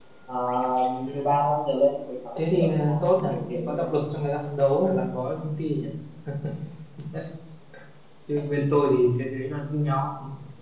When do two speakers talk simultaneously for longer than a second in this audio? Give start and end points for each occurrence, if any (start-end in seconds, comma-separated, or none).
2.4-3.8